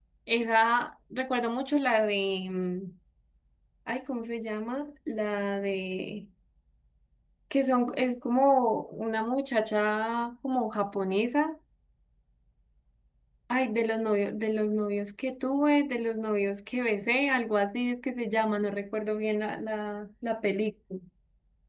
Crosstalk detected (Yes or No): No